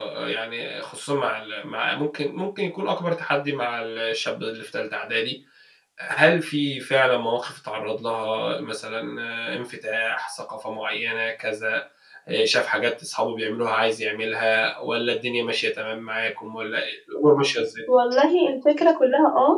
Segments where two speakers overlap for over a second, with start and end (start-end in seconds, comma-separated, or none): none